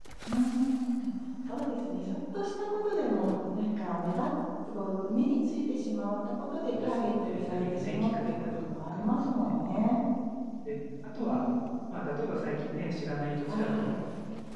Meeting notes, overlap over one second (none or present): present